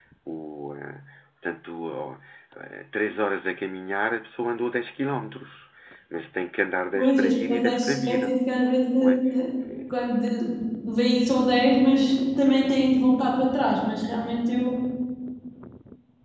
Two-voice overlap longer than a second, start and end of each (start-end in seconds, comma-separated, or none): 6.9-8.2